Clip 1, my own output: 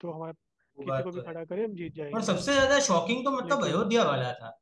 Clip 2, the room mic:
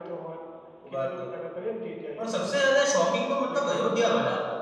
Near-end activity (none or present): none